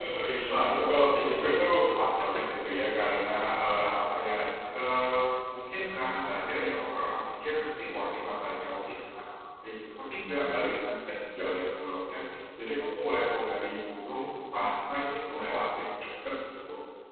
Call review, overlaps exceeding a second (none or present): present